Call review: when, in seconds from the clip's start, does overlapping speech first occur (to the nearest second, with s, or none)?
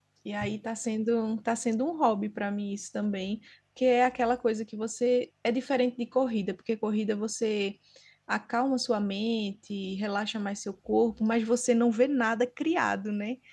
none